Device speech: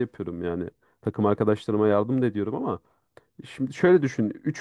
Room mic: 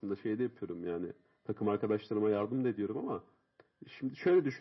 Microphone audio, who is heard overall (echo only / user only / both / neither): echo only